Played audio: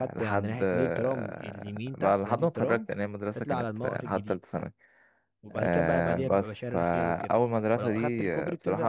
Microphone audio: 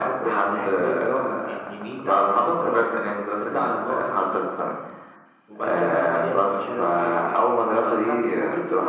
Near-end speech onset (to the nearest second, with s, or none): none